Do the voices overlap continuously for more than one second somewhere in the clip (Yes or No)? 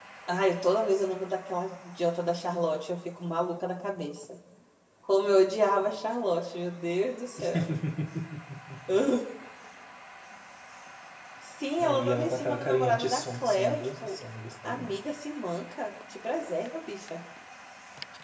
Yes